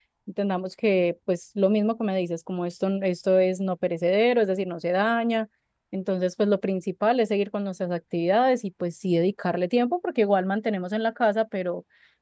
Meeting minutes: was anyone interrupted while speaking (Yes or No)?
No